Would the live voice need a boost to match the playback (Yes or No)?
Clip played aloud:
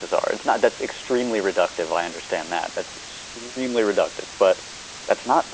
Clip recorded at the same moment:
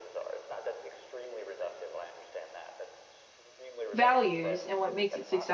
No